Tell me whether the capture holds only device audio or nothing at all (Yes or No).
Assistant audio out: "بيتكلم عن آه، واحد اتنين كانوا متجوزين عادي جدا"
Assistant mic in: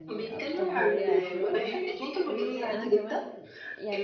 No